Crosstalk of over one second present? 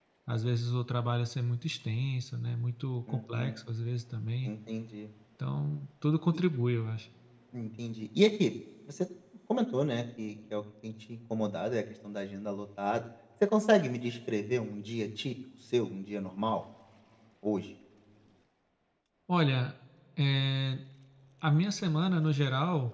No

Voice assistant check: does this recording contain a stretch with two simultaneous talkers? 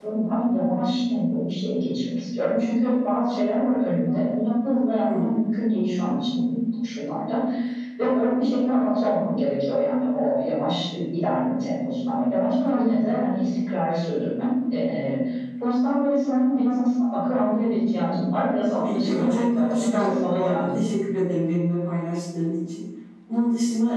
Yes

